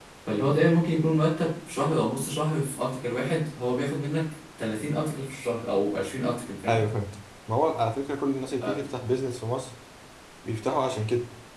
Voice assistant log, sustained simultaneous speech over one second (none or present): none